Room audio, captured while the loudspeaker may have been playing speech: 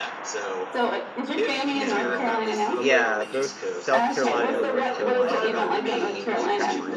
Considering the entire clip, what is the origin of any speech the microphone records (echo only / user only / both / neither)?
both